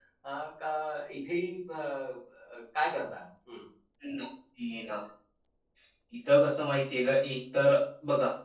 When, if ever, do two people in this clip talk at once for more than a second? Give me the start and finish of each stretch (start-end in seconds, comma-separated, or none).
none